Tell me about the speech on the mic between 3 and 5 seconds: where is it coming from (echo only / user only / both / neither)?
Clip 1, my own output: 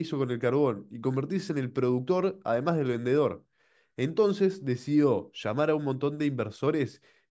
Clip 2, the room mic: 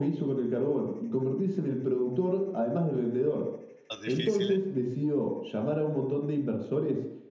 both